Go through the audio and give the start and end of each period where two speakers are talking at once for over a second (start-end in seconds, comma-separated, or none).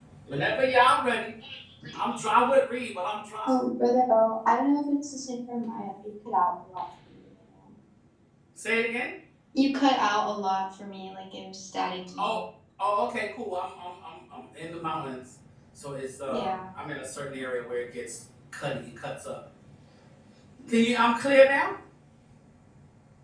none